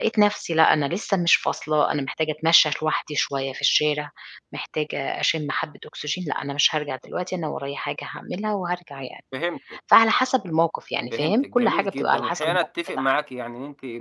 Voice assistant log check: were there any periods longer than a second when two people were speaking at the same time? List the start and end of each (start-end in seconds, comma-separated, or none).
11.1-13.2